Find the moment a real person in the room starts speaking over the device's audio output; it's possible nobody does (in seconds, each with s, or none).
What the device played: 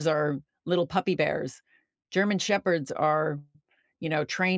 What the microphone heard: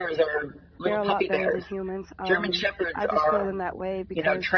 0.8 s